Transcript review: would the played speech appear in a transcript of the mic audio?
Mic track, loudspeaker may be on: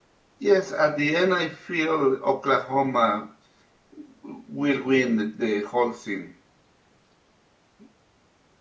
No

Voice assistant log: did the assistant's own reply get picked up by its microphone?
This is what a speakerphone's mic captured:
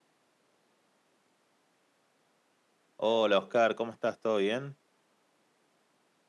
No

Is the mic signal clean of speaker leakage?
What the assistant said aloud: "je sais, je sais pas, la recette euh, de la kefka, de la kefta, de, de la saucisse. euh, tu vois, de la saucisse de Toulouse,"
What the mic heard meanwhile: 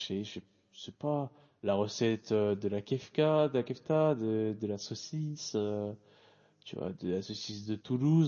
No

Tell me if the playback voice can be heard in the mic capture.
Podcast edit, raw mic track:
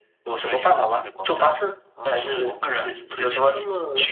Yes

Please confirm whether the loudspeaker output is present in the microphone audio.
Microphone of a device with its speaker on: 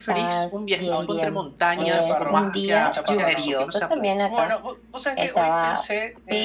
Yes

